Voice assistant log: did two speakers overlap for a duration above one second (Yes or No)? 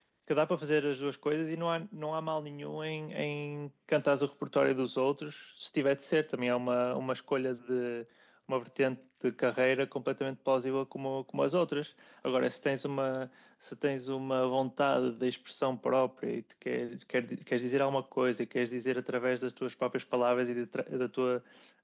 No